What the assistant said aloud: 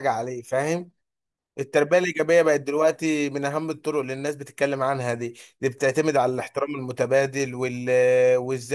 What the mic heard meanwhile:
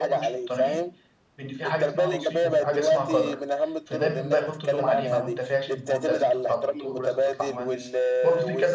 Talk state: both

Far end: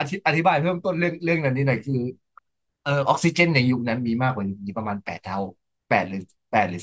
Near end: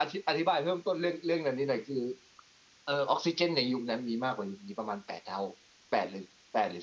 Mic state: echo only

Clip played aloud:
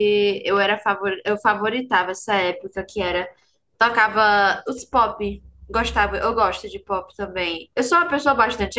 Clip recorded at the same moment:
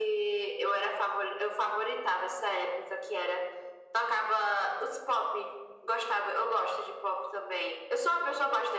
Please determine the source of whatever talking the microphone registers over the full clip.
echo only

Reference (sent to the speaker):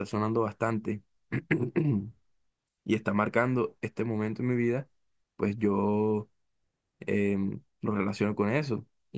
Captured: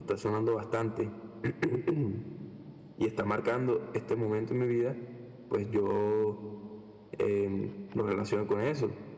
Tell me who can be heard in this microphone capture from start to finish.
echo only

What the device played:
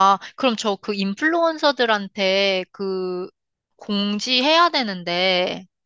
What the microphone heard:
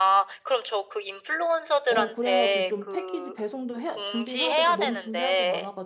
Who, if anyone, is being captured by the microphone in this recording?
both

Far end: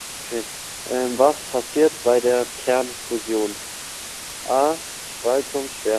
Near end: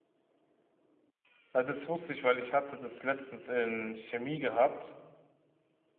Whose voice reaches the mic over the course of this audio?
user only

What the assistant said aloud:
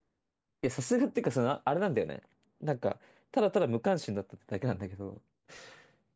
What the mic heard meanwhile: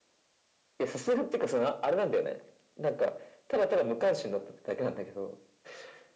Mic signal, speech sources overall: echo only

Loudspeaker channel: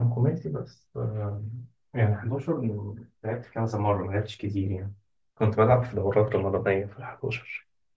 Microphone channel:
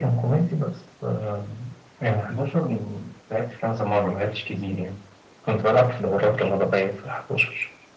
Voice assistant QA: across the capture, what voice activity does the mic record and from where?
echo only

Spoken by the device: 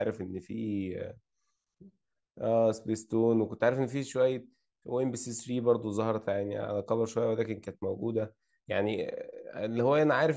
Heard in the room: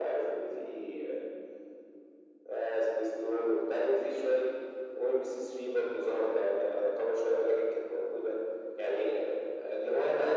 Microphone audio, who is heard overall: echo only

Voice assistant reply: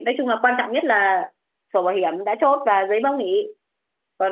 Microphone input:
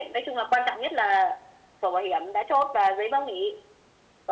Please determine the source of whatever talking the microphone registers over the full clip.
echo only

